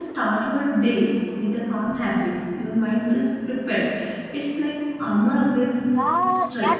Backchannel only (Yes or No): No